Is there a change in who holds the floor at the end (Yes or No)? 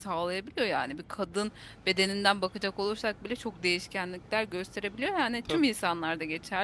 No